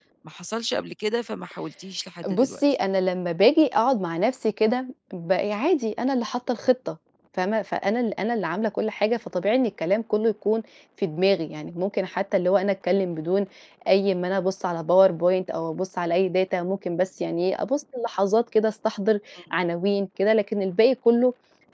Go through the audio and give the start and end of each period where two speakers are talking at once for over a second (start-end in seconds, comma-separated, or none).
none